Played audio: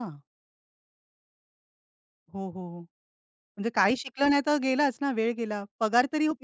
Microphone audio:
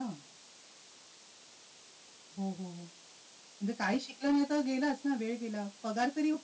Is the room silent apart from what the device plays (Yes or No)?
Yes